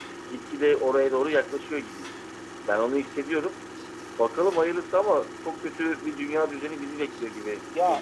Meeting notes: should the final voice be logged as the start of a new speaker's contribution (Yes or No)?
Yes